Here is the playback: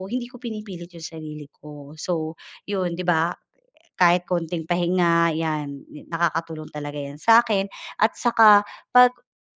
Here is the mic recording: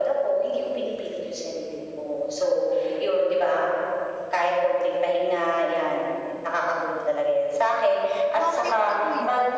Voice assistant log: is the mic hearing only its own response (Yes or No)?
No